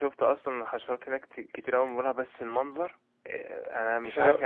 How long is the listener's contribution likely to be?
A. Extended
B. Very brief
B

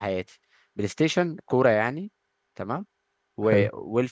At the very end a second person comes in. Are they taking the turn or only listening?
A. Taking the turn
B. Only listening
B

